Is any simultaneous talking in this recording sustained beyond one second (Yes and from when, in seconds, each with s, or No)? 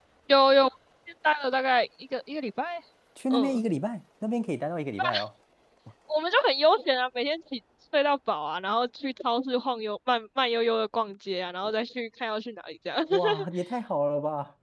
No